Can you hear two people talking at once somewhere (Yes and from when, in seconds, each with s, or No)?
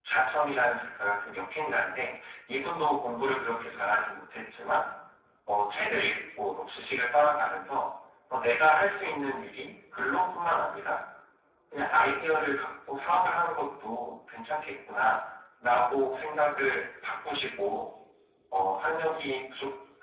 No